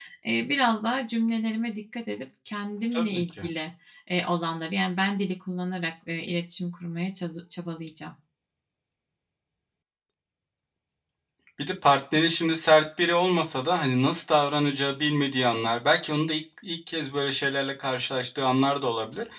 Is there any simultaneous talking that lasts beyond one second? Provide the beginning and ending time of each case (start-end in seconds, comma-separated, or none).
none